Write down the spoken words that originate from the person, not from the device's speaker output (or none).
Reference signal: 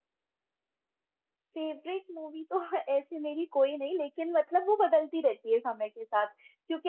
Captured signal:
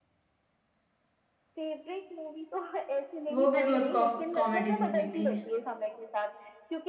वो भी बहुत कॉमेडी मूवी थी